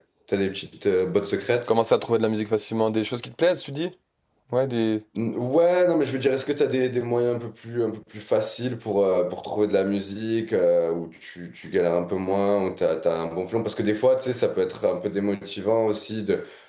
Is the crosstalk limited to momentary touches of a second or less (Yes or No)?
Yes